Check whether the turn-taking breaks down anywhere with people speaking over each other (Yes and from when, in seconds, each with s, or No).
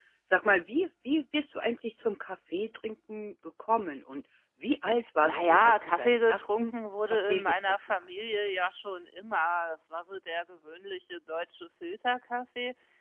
Yes, from 5.2 s